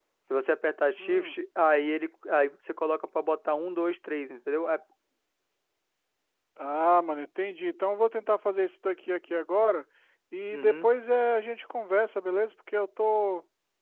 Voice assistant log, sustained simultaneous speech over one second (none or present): none